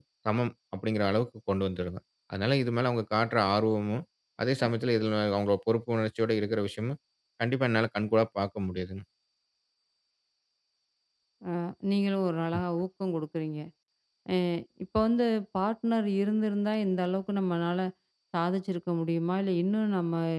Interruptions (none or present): none